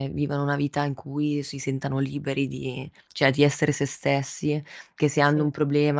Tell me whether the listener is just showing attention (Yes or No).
Yes